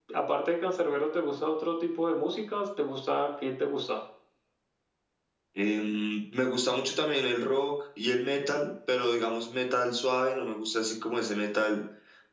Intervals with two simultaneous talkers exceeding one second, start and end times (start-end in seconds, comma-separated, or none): none